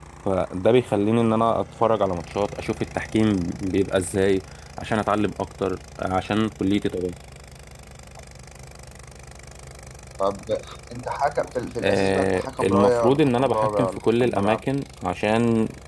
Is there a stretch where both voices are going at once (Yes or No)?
Yes